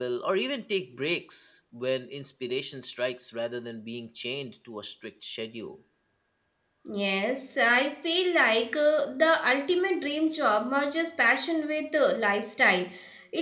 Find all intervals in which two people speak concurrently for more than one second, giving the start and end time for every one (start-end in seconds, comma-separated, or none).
none